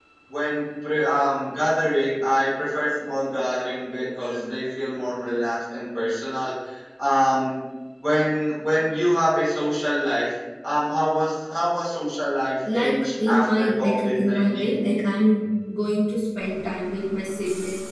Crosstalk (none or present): present